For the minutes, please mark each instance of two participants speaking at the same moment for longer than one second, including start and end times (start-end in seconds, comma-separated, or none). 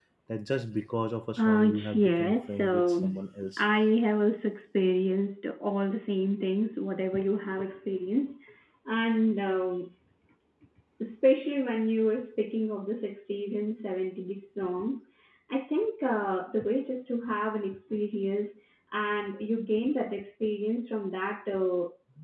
1.4-3.1